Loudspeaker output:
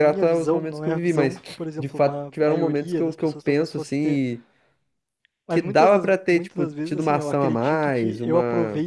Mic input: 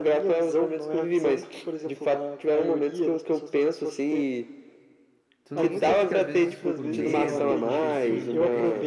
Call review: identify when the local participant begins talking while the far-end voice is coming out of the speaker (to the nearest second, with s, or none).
5 s